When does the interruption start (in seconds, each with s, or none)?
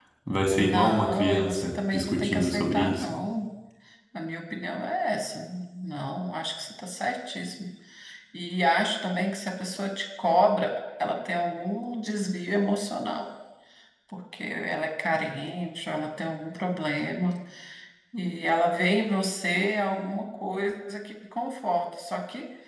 0.6 s